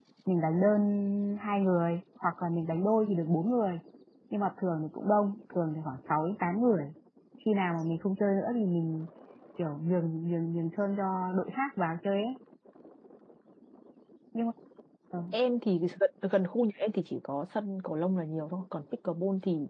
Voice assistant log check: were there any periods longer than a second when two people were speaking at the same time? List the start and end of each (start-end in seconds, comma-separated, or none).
none